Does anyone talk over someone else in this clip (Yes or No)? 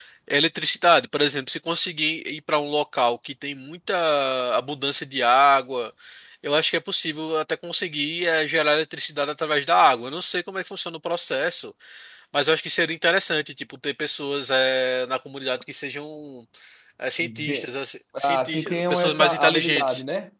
Yes